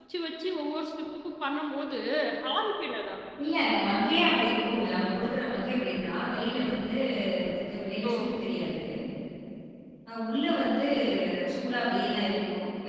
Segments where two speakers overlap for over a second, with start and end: none

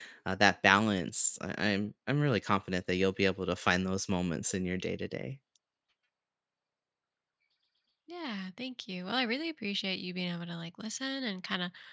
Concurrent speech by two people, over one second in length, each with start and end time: none

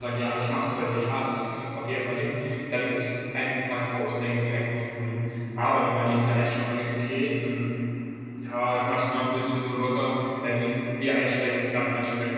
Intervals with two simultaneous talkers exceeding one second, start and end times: none

